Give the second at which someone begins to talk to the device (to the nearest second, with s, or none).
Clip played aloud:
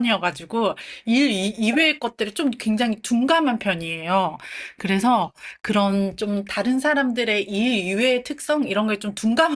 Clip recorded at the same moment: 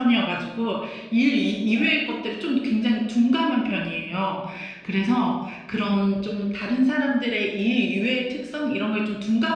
none